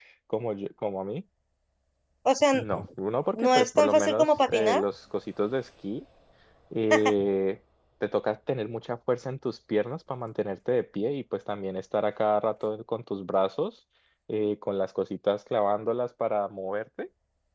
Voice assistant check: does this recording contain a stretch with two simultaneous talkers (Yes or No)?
Yes